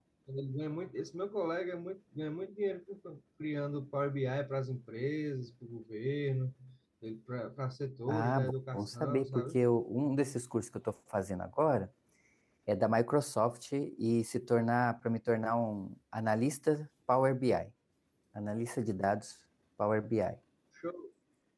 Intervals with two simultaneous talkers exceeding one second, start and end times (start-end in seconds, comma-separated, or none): 8.1-9.6